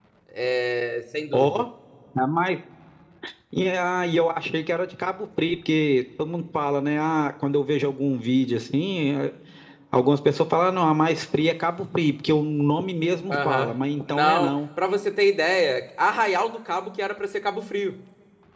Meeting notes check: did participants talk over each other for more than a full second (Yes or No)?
Yes